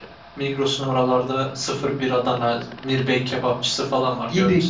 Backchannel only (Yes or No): No